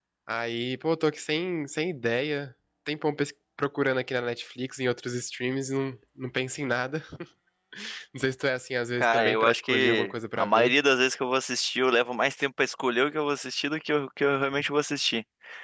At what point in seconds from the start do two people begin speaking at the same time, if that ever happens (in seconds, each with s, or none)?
9.0 s